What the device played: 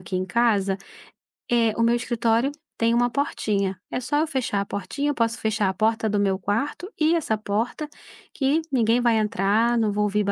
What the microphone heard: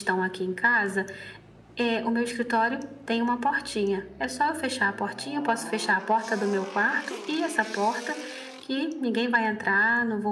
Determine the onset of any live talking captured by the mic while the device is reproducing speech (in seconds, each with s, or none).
none